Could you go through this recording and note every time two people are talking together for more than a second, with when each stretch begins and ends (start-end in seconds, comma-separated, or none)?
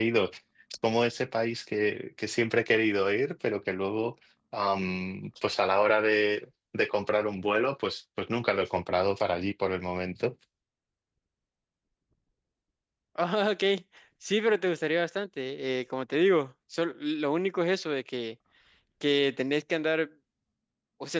none